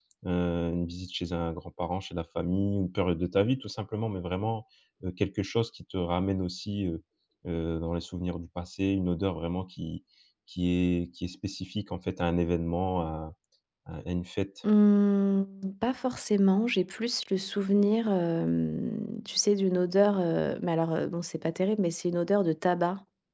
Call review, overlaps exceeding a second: none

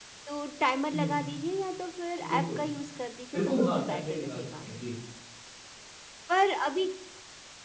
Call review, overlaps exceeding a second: present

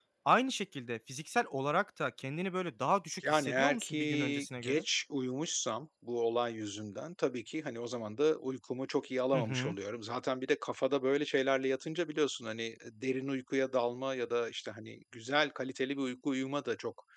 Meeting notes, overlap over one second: present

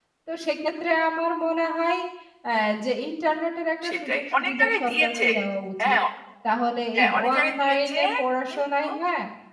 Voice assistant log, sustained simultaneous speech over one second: present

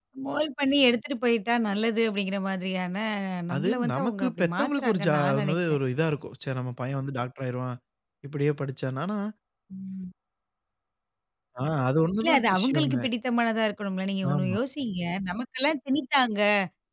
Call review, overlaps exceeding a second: present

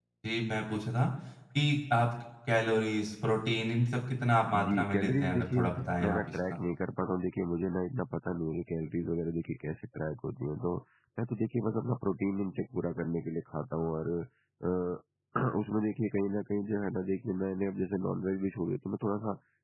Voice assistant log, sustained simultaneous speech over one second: present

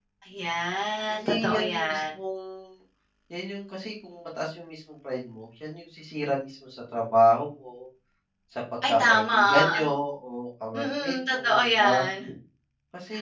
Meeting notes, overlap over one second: present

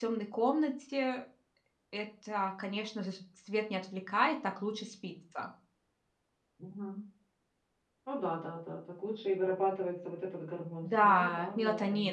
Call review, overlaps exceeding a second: present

